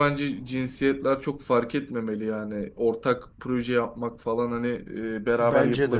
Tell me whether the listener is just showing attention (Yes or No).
Yes